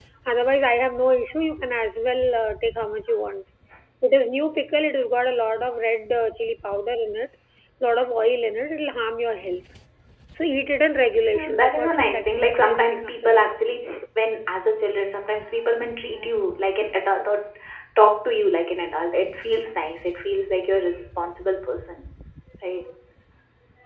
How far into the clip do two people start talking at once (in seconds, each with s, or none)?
11.3 s